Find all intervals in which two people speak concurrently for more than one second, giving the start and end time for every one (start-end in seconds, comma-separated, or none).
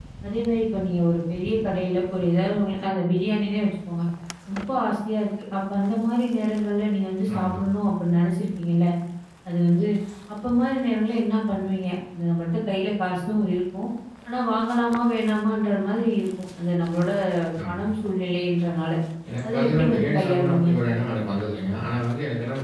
19.4-20.7